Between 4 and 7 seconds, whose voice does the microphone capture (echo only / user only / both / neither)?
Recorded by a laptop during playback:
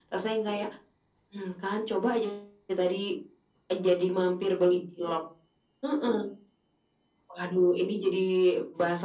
echo only